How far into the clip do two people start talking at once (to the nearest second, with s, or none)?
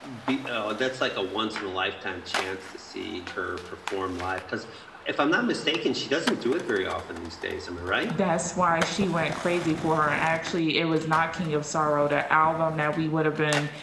none